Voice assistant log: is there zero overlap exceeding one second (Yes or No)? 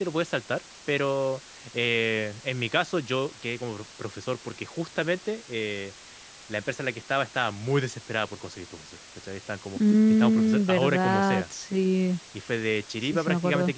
No